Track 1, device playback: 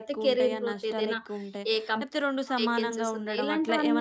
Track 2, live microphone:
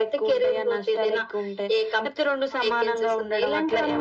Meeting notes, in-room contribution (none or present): none